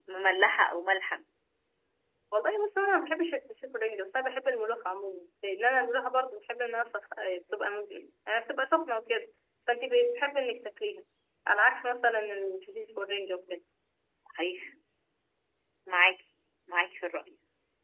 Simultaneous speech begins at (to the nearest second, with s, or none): none